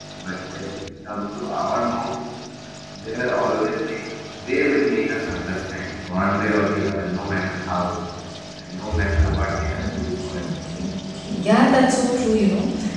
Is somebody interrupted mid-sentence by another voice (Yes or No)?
Yes